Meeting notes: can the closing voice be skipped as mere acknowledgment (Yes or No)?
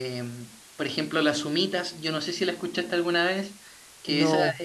Yes